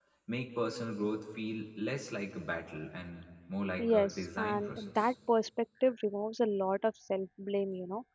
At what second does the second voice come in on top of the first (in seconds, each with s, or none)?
3.8 s